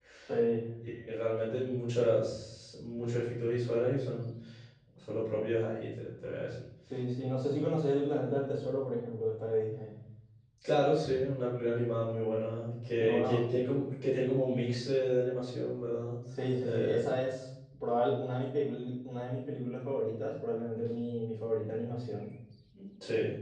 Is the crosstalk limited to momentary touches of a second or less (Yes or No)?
Yes